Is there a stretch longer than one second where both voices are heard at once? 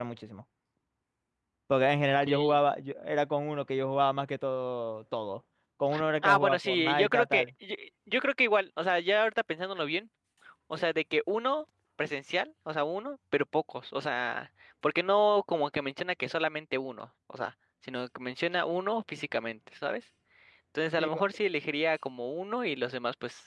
Yes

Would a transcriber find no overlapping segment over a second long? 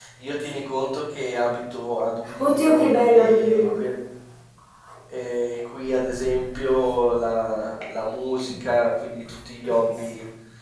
No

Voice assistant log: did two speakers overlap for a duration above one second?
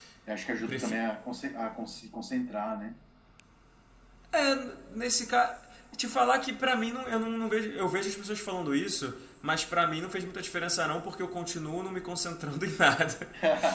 No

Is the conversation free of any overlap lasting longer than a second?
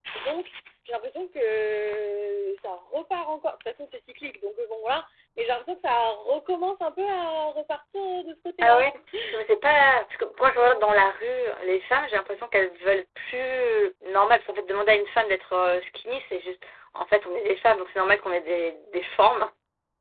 Yes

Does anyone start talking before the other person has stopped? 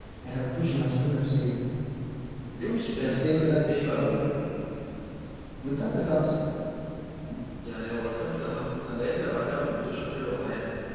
Yes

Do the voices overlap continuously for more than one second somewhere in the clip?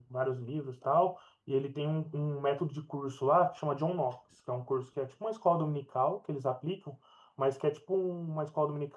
No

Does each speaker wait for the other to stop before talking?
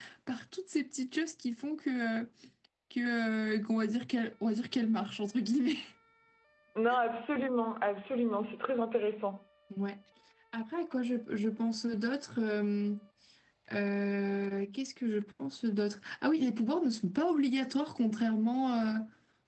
Yes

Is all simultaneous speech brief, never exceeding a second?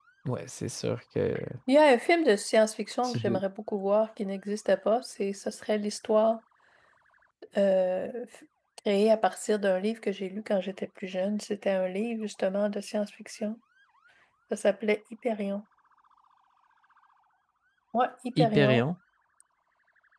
Yes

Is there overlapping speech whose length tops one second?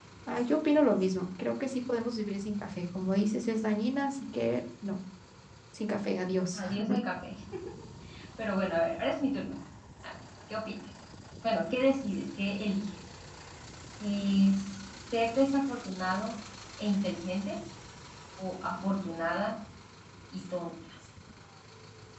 No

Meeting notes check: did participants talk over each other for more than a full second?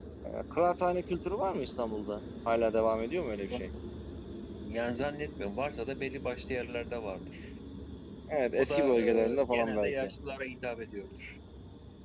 Yes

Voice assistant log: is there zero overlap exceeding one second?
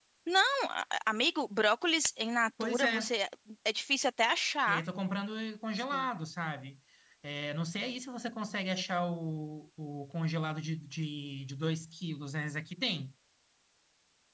Yes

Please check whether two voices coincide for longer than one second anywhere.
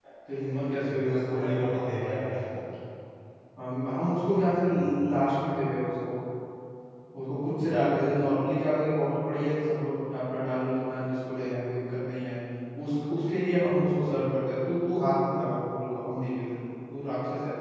Yes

